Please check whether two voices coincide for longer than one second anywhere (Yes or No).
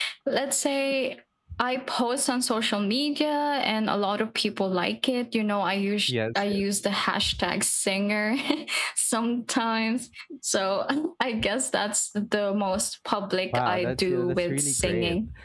Yes